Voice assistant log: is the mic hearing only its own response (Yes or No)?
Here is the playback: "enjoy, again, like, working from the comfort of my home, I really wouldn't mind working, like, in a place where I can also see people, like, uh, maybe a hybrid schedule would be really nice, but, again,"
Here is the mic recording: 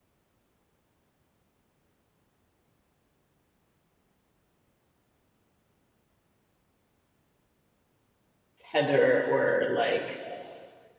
No